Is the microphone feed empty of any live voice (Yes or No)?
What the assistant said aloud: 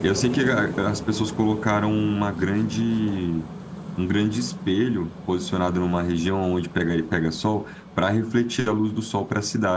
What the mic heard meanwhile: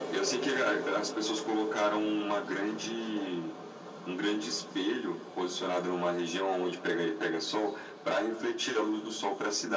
Yes